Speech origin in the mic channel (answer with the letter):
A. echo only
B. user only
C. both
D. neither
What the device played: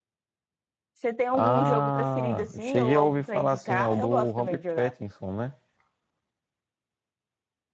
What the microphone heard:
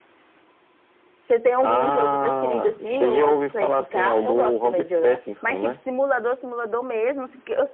C